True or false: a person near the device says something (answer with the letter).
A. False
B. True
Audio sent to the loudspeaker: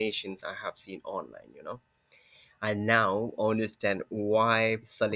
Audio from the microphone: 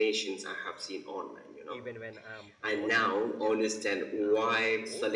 B